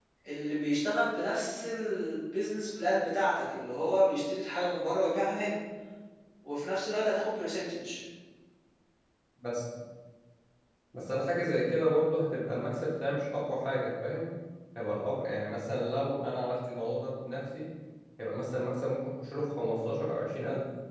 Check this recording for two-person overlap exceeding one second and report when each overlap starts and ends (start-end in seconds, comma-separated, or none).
none